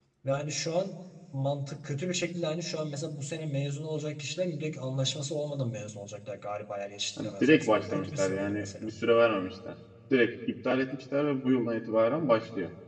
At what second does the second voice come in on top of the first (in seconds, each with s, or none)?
7.2 s